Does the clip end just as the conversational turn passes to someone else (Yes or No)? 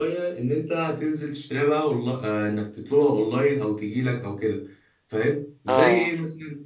No